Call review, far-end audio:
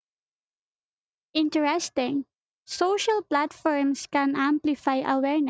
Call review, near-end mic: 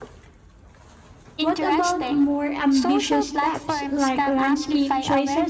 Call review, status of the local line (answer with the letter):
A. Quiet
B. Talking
B